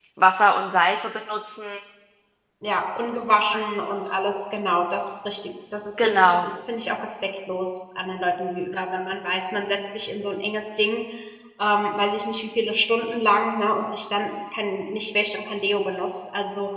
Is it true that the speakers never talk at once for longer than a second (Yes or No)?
Yes